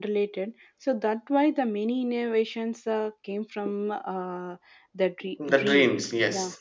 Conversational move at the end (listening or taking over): taking over